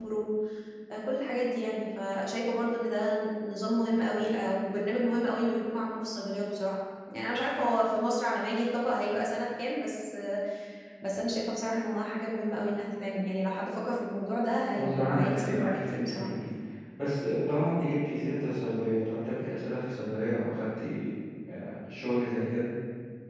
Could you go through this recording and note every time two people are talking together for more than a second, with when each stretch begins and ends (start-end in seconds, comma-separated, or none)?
14.7-16.3